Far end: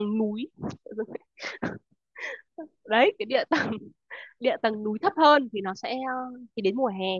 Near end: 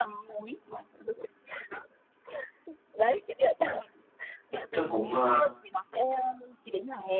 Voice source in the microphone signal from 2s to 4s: echo only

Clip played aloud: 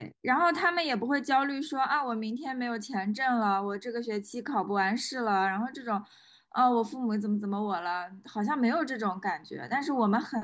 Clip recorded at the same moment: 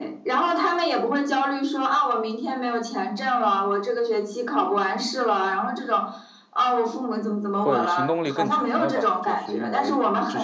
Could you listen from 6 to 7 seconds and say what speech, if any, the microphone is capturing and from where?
echo only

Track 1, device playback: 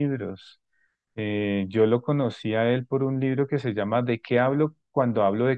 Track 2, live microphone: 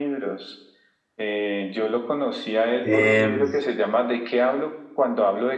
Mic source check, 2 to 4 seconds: both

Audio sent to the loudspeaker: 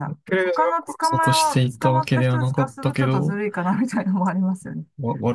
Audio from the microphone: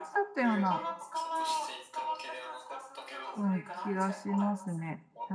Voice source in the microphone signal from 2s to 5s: both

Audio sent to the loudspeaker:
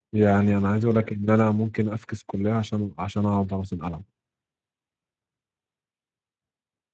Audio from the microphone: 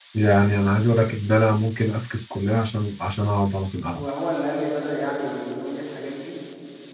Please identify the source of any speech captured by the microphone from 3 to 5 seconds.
both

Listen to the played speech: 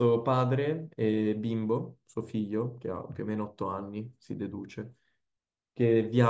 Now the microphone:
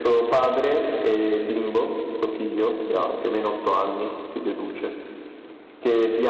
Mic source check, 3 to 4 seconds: echo only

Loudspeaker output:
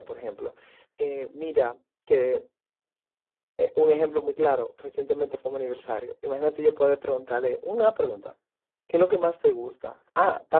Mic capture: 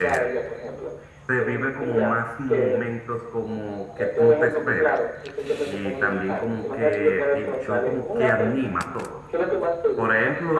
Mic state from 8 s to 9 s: both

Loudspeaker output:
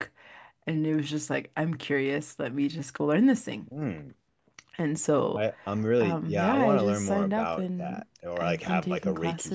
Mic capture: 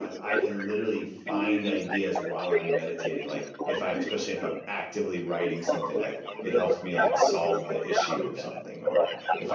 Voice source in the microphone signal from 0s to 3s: both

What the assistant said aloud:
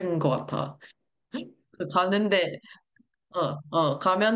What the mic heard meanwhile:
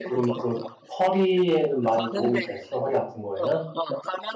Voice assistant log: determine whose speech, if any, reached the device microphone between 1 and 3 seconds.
both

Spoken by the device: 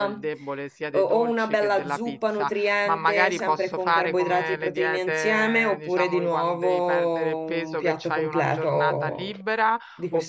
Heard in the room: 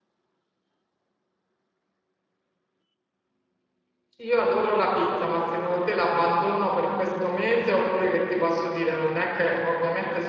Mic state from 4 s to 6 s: user only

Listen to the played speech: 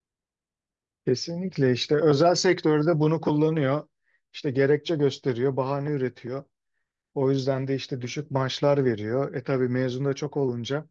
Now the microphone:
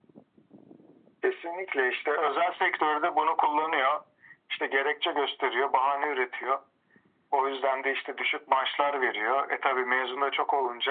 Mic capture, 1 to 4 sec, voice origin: echo only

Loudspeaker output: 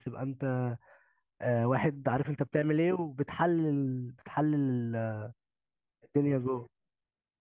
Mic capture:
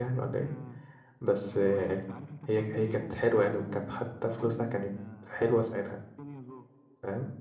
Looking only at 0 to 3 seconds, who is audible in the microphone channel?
both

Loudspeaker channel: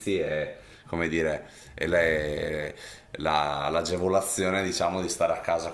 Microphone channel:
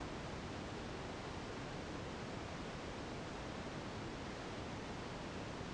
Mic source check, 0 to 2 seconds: neither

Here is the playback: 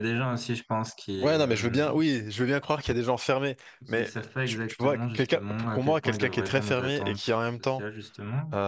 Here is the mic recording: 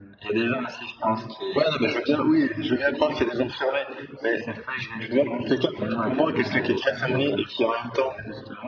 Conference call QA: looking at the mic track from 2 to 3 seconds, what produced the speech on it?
echo only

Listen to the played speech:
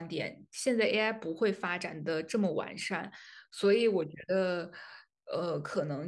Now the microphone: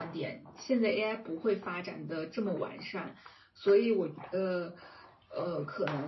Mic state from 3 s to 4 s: echo only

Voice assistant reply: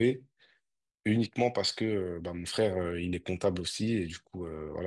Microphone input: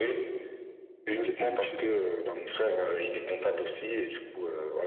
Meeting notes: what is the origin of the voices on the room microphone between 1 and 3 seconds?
both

